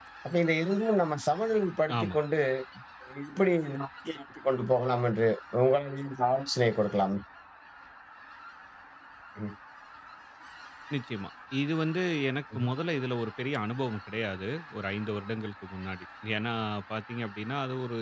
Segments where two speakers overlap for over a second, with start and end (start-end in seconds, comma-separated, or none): none